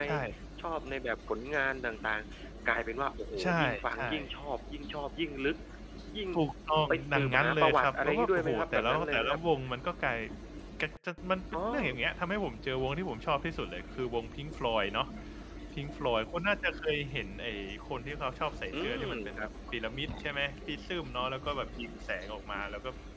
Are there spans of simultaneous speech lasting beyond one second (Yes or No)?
Yes